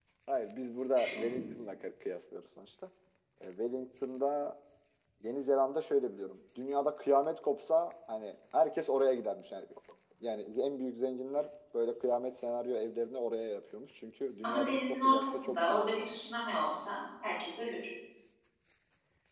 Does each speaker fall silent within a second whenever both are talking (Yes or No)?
No